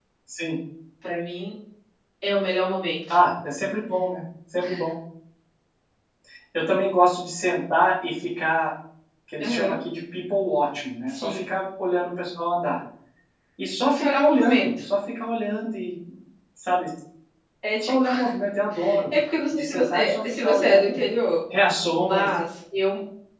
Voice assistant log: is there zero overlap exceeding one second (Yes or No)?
No